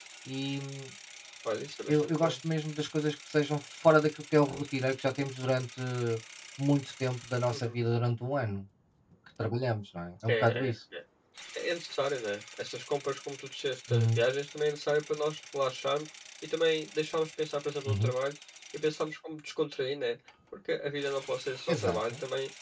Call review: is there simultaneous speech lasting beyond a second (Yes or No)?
No